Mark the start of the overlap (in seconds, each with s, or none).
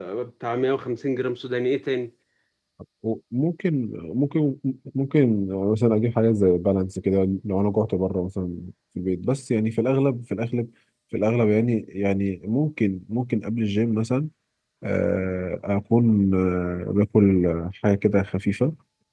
none